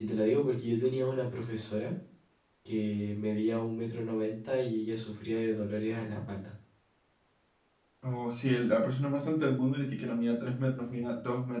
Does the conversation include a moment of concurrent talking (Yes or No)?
No